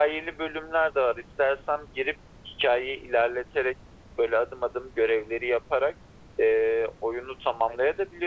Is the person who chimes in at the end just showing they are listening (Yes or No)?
Yes